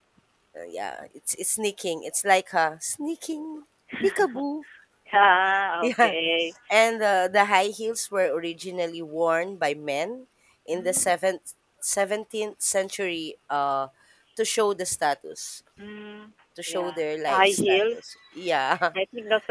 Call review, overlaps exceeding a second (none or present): present